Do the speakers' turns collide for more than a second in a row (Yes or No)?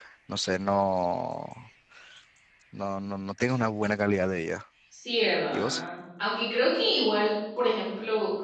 No